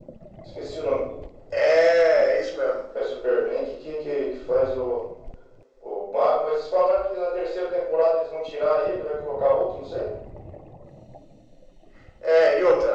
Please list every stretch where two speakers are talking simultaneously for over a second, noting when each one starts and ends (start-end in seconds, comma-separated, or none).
none